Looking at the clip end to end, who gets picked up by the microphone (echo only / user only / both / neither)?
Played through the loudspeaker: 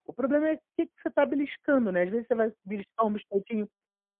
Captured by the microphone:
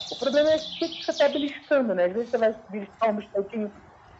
echo only